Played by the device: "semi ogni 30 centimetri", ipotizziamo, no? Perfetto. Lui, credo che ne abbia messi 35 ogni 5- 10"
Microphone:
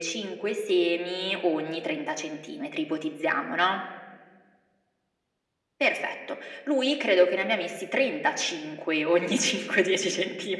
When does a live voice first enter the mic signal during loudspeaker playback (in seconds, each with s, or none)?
none